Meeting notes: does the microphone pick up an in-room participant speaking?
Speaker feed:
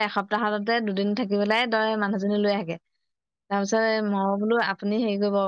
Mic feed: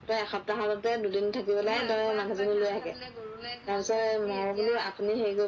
Yes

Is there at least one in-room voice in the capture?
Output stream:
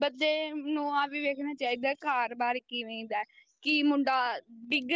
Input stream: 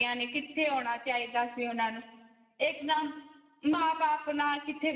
Yes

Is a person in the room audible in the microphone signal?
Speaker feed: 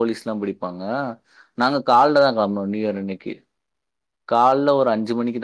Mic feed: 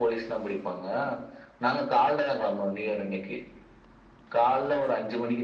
No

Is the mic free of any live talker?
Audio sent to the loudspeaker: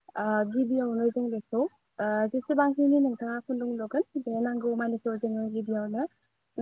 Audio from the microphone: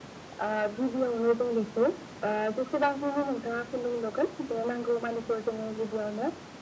Yes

